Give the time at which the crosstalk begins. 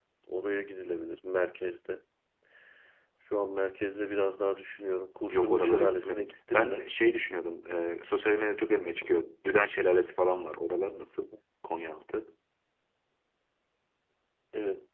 5 s

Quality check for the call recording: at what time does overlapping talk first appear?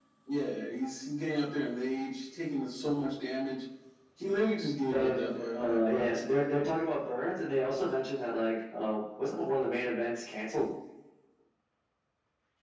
5 s

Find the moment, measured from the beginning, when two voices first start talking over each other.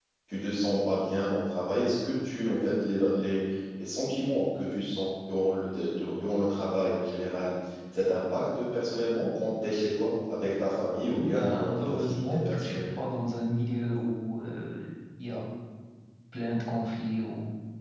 11 s

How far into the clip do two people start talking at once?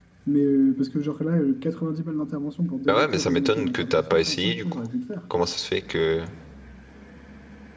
3 s

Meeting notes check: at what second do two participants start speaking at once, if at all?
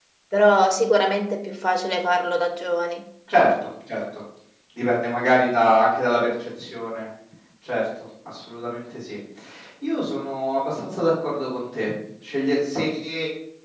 none

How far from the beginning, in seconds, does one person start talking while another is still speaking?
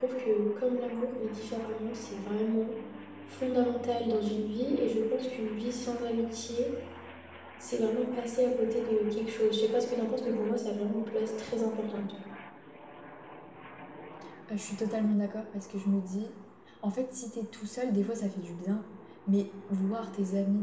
none

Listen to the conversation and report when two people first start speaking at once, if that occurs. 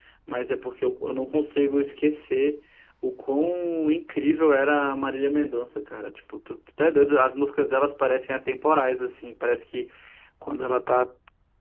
none

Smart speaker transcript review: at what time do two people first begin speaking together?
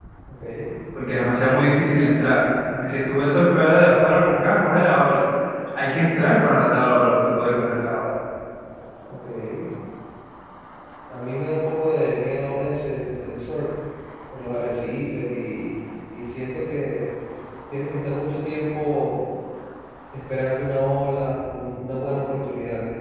none

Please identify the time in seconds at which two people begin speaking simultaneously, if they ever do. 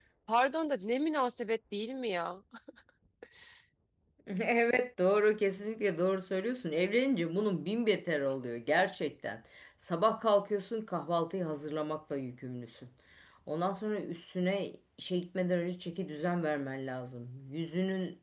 none

